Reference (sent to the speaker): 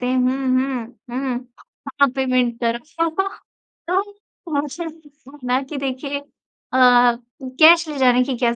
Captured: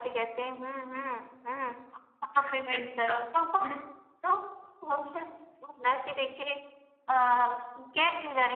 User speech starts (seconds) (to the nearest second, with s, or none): 2 s